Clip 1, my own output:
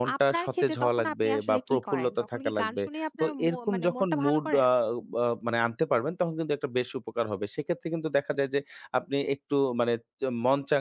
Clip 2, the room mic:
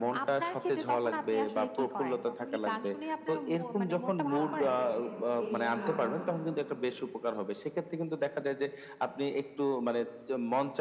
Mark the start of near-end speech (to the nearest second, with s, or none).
4 s